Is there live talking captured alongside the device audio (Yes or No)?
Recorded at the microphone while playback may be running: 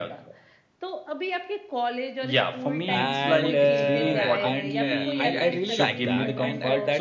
Yes